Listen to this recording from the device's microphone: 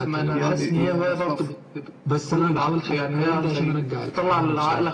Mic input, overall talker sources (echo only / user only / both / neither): both